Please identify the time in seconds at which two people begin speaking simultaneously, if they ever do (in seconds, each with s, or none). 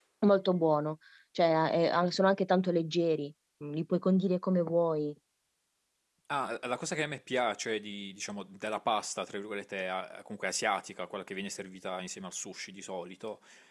none